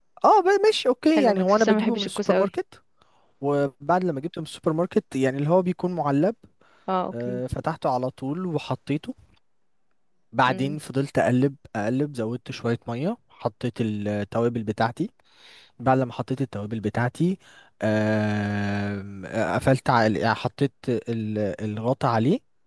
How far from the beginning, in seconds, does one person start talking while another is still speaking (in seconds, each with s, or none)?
1.2 s